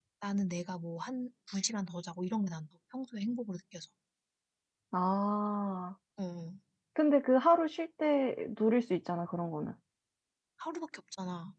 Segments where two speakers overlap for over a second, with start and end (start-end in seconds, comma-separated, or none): none